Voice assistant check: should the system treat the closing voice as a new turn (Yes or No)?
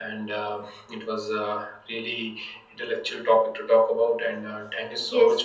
Yes